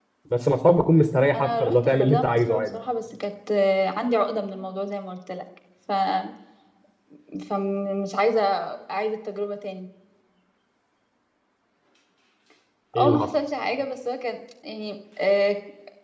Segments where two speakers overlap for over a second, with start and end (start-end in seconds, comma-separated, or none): 1.4-2.8